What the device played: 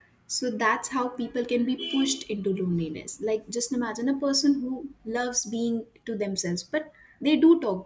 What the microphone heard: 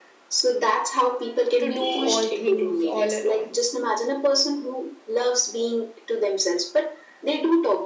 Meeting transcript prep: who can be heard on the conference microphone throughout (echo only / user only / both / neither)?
both